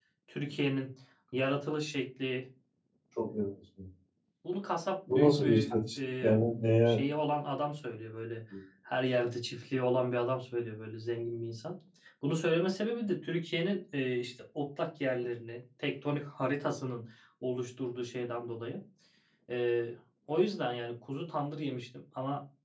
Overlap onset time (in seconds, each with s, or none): 5.1 s